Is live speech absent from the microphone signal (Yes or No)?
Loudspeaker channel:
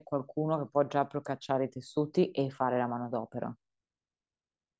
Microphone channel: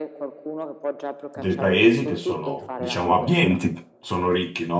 No